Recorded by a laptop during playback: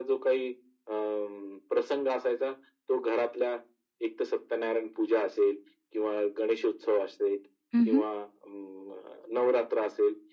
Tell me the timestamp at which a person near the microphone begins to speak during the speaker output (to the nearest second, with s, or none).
8 s